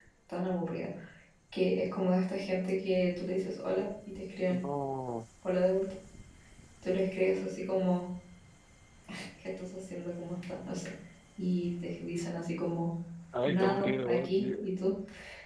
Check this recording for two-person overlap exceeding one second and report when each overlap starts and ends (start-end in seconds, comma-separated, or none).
13.5-14.8